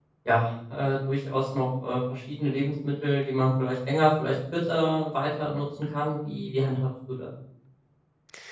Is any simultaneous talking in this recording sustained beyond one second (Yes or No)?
No